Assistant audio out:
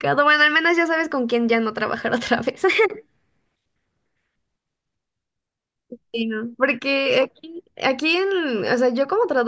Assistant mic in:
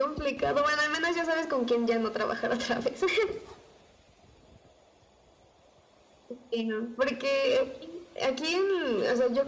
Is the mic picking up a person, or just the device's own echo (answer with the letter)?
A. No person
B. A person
A